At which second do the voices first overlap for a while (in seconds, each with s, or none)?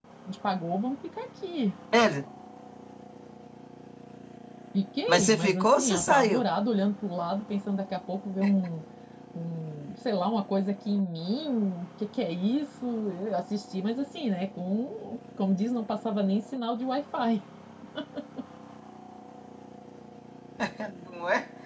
5.1 s